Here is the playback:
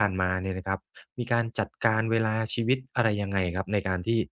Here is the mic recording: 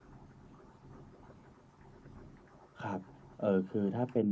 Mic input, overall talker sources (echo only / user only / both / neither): user only